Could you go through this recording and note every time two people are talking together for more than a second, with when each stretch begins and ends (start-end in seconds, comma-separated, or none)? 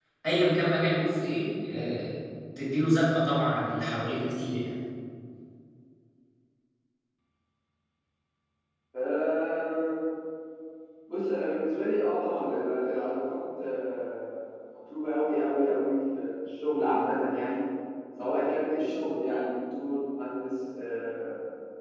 none